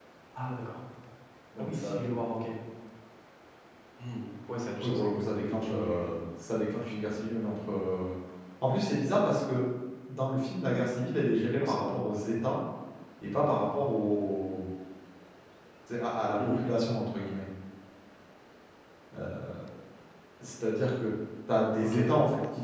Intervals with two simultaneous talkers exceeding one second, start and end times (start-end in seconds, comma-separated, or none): 4.8-6.2